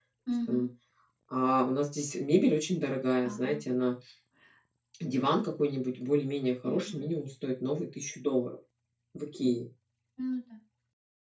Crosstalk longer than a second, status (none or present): none